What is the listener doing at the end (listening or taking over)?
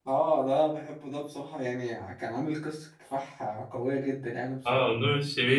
taking over